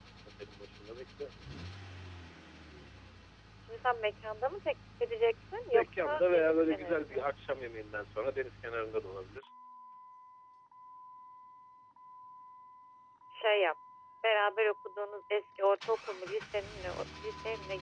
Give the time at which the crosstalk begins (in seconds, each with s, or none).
5.7 s